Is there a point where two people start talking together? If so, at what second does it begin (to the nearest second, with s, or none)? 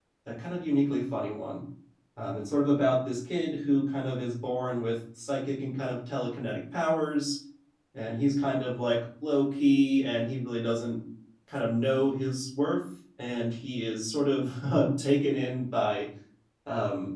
none